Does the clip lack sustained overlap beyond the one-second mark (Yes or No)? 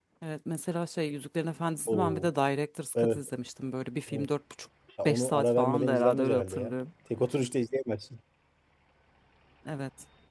No